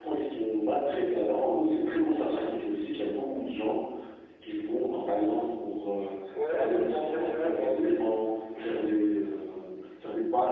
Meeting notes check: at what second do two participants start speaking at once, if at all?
6.6 s

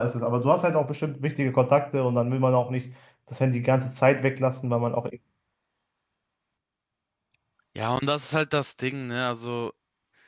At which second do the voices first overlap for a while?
none

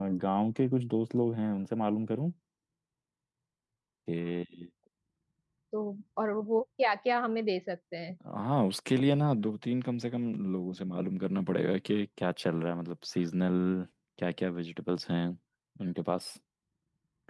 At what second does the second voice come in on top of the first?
none

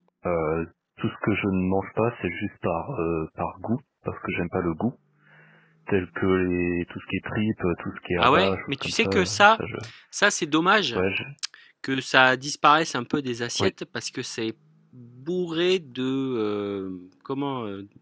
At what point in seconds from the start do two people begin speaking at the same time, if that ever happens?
8.2 s

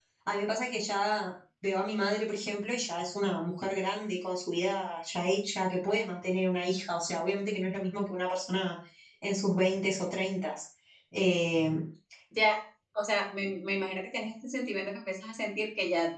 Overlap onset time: none

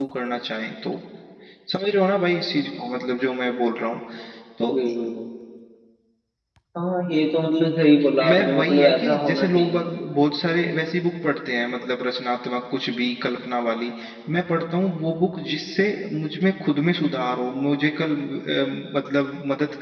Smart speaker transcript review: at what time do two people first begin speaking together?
8.2 s

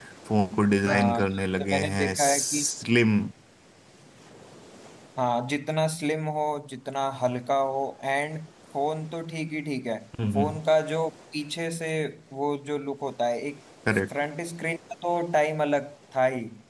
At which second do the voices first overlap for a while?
0.9 s

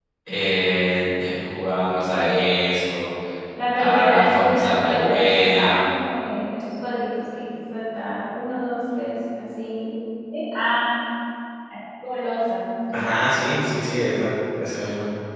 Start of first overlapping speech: 3.8 s

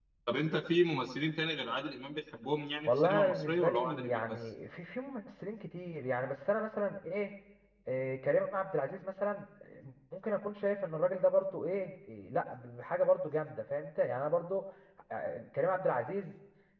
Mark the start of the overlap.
2.9 s

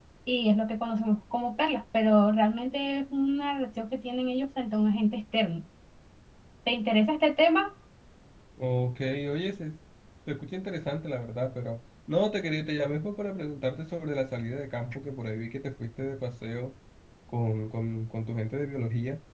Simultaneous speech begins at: none

